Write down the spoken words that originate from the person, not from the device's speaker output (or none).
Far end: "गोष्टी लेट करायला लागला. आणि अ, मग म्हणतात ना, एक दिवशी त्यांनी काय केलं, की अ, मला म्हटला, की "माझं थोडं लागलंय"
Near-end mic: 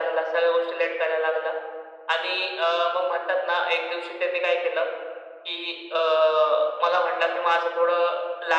none